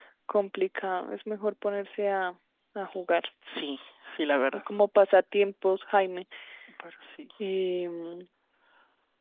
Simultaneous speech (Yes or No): No